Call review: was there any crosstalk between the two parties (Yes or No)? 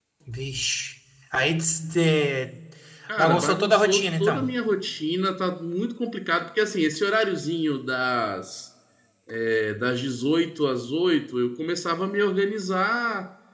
Yes